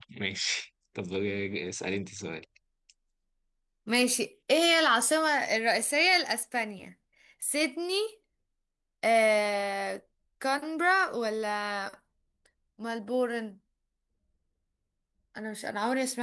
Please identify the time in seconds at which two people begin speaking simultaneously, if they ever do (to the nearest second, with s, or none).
none